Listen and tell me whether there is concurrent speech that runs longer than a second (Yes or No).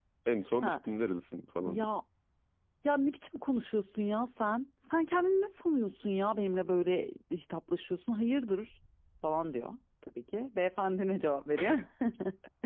No